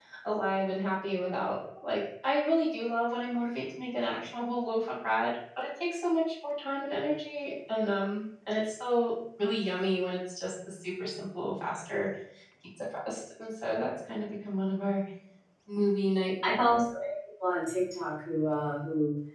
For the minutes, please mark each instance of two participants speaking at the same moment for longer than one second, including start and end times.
none

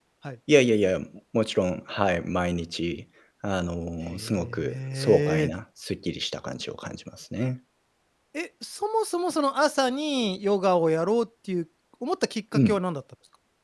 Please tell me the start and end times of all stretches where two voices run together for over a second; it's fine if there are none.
4.1-5.4

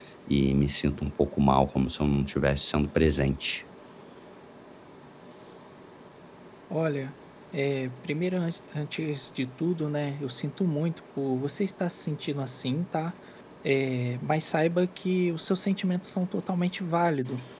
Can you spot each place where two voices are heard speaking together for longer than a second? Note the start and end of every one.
none

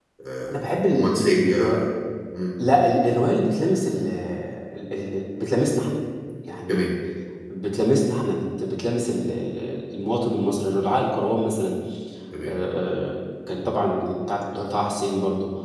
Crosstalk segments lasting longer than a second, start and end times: 0.5-1.8

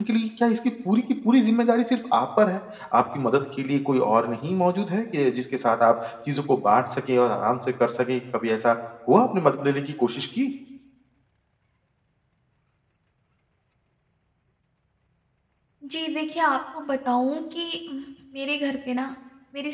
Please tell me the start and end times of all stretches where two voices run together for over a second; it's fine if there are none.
none

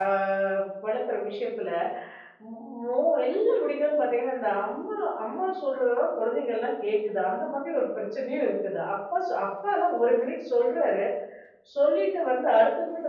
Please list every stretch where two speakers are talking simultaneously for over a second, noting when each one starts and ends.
none

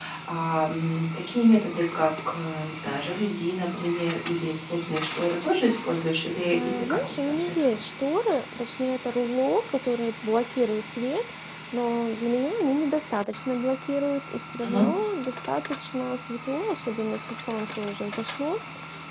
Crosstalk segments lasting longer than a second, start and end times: 6.5-7.8

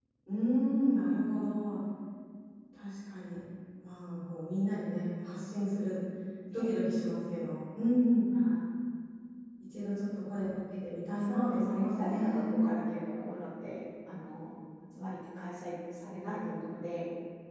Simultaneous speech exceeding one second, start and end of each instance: 11.2-12.5

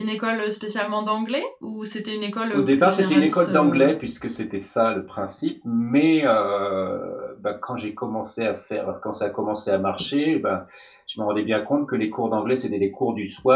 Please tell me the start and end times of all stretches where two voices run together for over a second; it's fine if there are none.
2.5-3.9

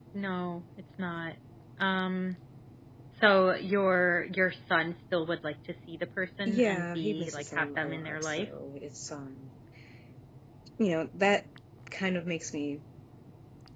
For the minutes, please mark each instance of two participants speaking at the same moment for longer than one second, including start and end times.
6.5-8.5

